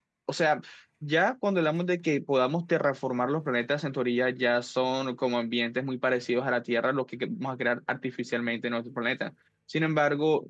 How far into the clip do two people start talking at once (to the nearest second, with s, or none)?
none